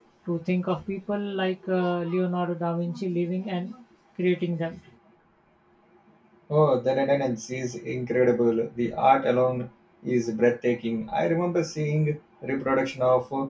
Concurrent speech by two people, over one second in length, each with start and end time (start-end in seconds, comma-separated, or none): none